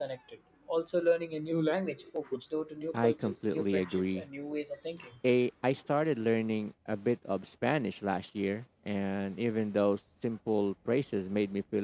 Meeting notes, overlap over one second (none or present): present